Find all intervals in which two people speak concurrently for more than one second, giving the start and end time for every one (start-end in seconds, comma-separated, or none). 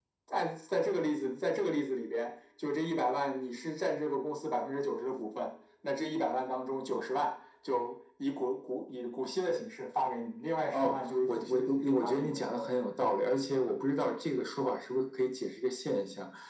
10.7-12.7